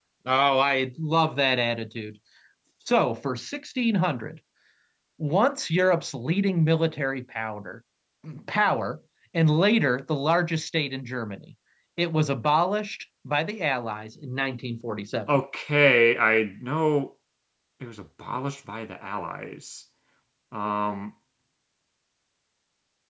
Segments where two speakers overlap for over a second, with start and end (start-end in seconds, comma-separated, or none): none